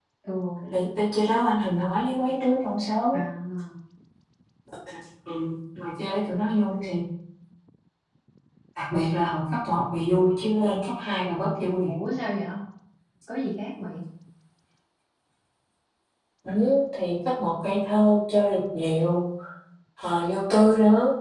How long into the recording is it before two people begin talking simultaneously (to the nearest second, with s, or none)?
none